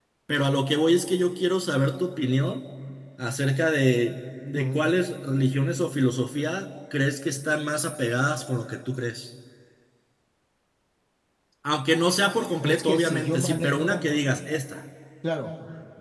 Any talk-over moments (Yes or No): Yes